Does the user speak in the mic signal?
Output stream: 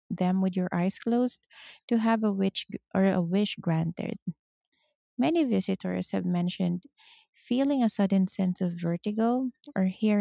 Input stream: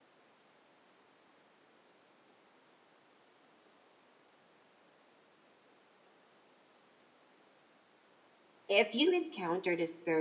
Yes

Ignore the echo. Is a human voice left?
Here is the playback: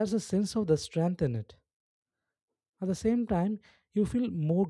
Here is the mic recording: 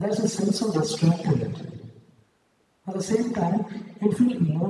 No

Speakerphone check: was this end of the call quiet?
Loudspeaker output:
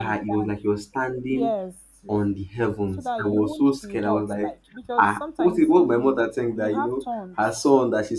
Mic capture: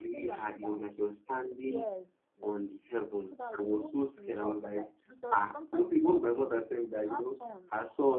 Yes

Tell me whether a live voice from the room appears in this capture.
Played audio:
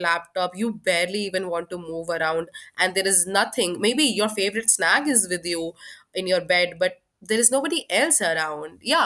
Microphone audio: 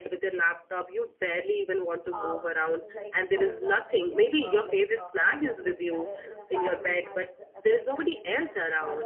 Yes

